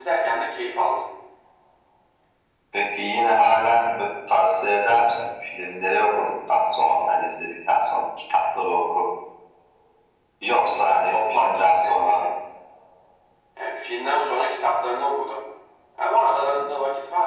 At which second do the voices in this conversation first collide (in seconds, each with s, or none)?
10.9 s